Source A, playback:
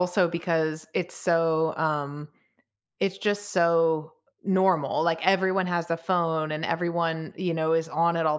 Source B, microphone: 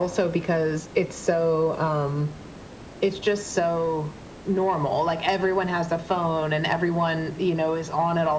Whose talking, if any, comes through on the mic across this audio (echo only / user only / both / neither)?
echo only